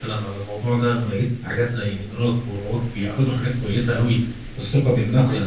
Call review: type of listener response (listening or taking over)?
listening